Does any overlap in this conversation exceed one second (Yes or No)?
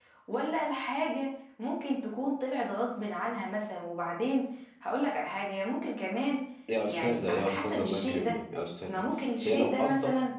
Yes